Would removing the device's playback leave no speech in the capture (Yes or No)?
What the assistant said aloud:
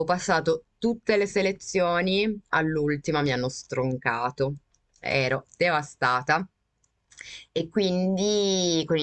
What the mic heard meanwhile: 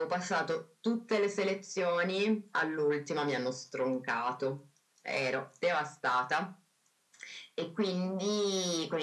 Yes